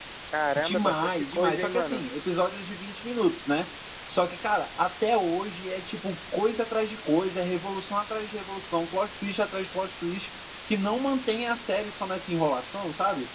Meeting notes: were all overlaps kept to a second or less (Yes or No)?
No